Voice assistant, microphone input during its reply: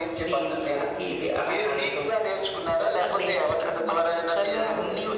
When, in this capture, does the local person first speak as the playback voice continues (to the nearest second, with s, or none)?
none